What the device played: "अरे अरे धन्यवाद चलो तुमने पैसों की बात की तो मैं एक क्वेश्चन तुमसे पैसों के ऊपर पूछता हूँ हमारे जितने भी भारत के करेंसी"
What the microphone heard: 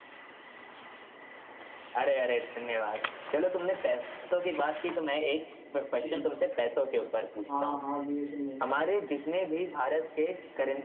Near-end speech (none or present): present